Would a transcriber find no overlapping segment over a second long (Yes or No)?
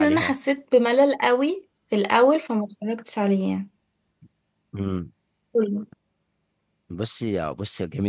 Yes